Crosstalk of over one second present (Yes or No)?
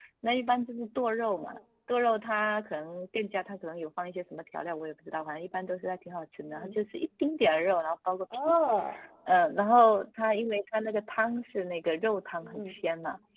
No